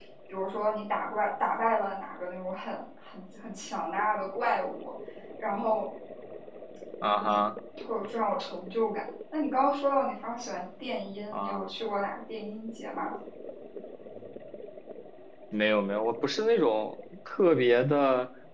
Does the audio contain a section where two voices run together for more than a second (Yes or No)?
No